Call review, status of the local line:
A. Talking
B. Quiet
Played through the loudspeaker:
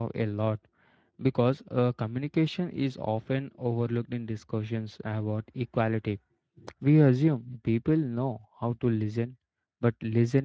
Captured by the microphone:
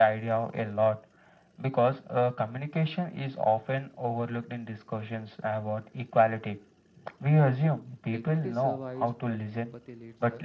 A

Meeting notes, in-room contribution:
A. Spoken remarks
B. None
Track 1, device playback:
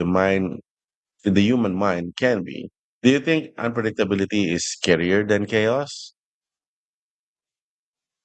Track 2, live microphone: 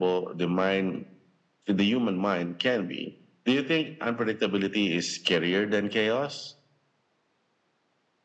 B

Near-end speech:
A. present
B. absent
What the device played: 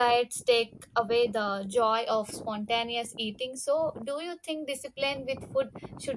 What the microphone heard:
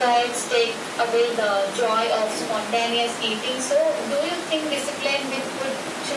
B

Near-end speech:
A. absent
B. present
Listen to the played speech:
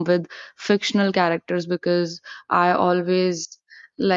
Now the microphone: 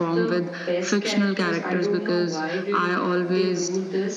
B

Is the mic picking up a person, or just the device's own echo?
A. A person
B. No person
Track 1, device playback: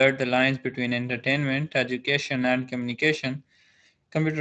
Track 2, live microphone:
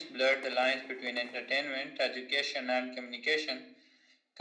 B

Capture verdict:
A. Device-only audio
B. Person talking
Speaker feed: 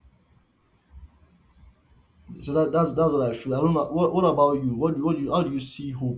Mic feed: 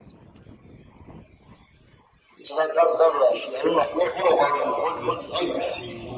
B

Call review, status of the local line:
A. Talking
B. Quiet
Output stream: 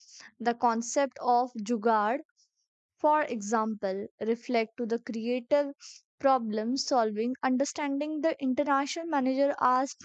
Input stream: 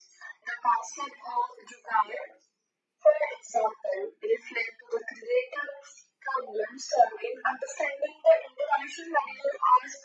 B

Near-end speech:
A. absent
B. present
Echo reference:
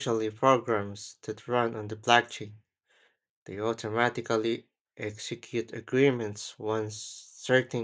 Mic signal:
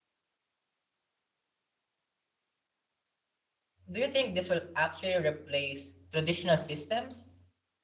B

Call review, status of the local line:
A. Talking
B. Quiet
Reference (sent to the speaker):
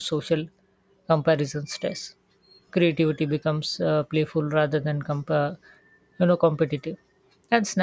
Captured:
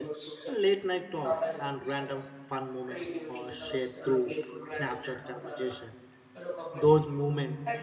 A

